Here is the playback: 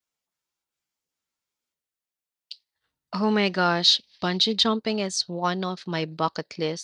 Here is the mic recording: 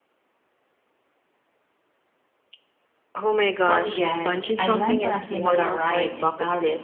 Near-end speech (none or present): present